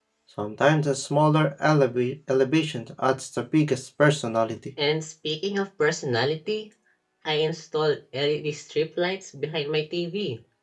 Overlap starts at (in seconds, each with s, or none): none